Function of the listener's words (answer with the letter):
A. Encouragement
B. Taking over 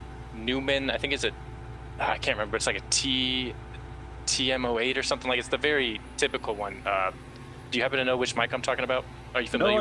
B